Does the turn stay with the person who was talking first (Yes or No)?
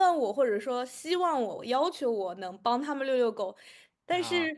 Yes